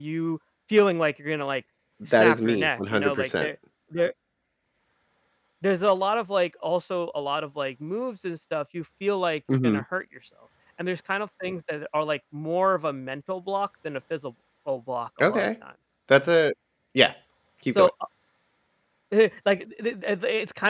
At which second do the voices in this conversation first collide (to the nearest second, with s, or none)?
2 s